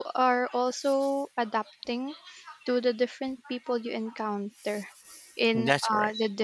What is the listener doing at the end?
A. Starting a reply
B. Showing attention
B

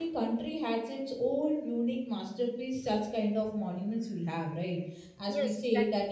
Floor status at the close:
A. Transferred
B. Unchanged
B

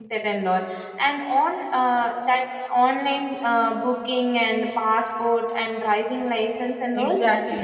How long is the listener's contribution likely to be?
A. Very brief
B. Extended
B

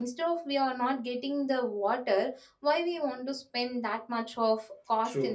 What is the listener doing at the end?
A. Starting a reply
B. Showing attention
A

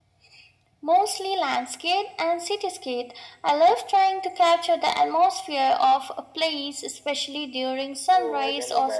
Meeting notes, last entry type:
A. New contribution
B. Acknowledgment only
A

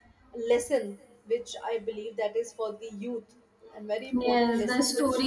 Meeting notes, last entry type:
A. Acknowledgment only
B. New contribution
B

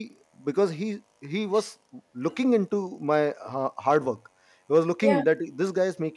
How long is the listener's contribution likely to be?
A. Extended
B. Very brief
B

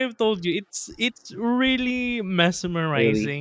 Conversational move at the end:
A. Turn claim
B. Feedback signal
B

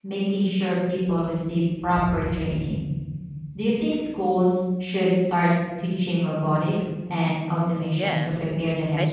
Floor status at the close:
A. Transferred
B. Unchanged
A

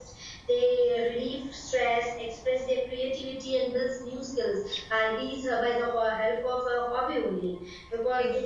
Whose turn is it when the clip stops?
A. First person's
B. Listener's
A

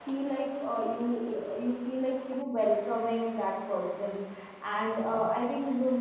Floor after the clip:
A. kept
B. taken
A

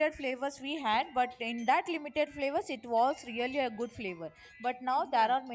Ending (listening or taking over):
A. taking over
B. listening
B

